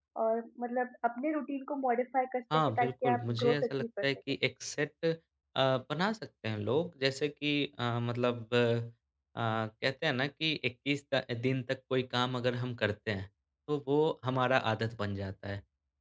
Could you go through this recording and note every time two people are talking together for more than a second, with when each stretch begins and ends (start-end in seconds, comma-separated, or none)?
2.5-4.1